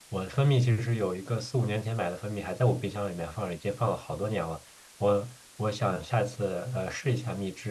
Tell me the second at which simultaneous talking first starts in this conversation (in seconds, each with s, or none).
none